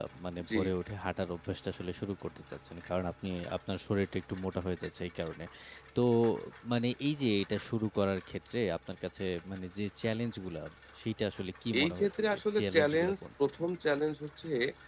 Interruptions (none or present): present